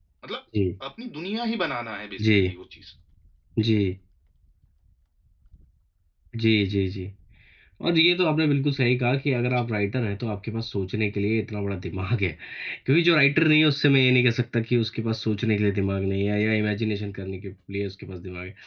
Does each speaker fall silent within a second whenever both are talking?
Yes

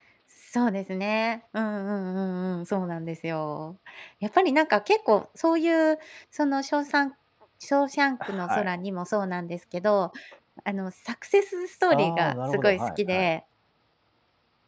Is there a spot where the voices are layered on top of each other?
Yes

